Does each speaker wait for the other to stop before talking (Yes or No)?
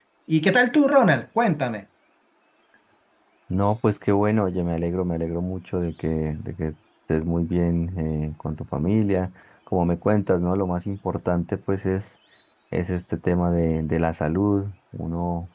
Yes